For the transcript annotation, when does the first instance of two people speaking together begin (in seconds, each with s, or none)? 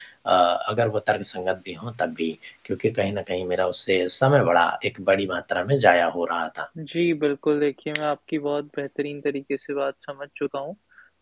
none